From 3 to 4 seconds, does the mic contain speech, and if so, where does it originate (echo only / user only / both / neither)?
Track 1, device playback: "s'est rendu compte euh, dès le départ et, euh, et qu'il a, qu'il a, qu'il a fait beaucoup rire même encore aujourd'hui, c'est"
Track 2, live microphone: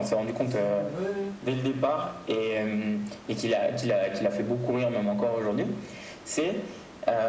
echo only